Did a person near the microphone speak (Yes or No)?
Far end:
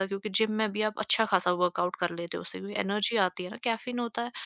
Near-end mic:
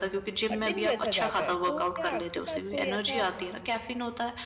Yes